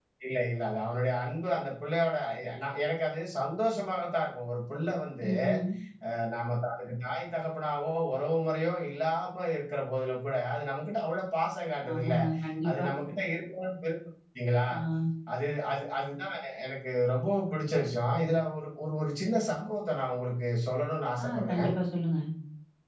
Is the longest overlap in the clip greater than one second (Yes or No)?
No